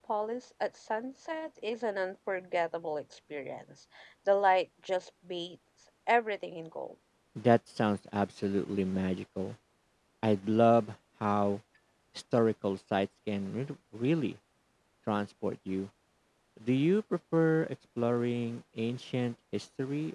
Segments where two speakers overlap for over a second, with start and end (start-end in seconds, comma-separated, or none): none